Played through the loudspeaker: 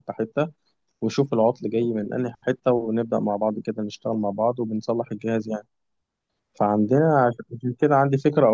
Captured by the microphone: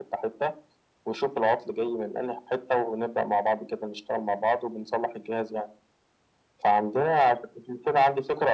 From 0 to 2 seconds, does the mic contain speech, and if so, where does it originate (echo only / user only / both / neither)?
echo only